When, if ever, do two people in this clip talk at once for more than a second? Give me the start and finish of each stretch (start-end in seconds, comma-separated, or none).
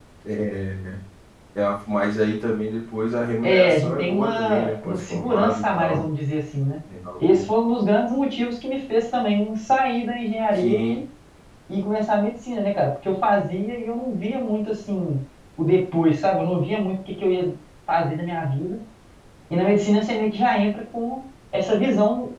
3.4-6.0